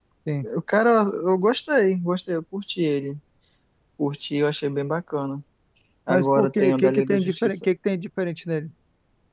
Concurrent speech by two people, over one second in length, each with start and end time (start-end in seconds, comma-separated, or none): 6.1-7.7